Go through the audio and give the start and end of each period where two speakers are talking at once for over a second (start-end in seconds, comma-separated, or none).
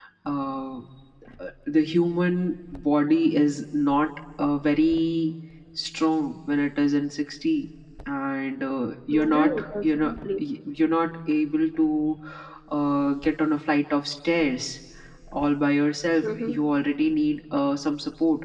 9.1-10.4